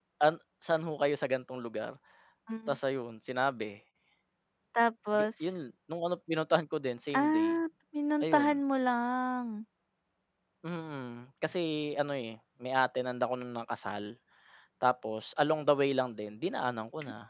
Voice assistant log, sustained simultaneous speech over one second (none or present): none